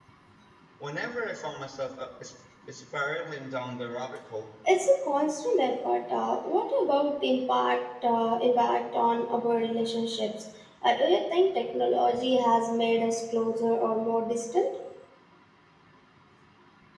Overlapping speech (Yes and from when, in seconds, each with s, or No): No